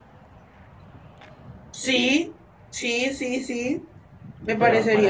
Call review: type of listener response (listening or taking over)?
taking over